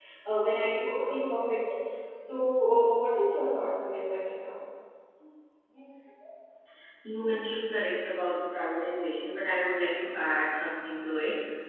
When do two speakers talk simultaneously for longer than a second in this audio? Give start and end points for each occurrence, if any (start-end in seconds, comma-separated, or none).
none